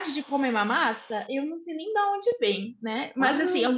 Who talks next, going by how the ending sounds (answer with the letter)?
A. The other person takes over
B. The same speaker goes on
B